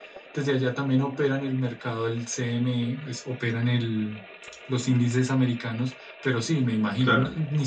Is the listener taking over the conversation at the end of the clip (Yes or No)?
No